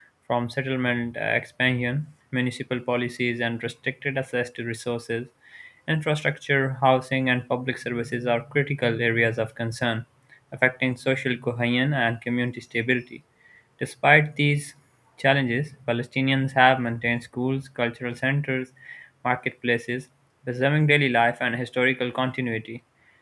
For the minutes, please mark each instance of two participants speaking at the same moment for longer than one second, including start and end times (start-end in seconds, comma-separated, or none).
none